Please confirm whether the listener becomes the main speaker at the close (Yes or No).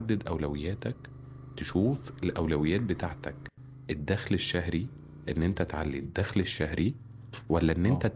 No